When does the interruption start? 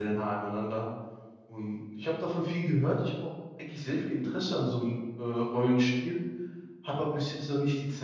none

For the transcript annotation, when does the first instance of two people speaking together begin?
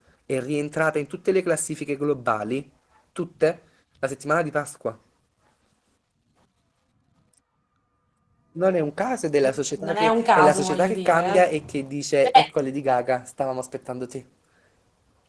9 s

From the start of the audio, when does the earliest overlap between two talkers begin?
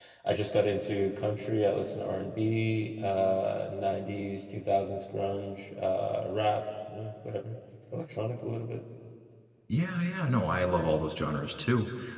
none

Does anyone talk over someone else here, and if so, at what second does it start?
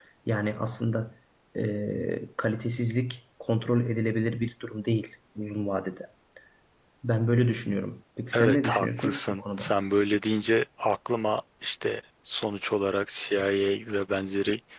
8 s

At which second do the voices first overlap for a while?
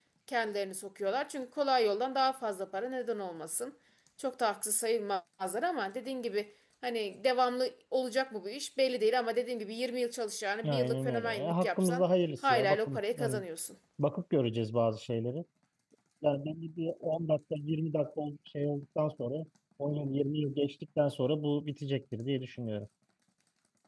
11 s

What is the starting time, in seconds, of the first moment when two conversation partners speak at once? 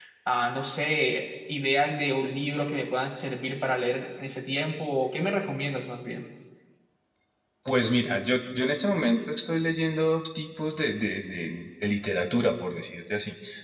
none

